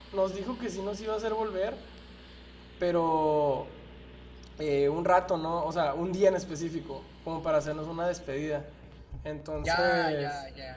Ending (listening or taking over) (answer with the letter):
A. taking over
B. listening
A